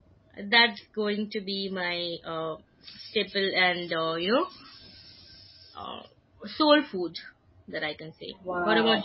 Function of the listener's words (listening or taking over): taking over